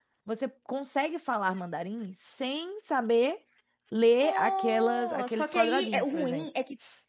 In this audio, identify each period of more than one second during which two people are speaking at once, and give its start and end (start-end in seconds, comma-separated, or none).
4.2-6.5